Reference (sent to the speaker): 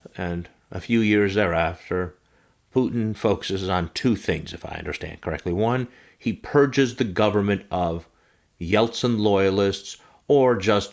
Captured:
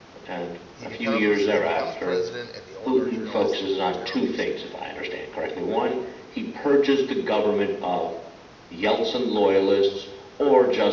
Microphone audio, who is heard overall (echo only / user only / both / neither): both